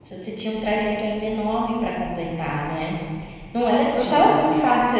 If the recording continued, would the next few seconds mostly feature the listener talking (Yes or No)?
No